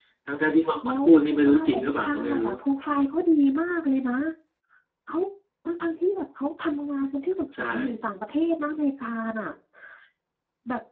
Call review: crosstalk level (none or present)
present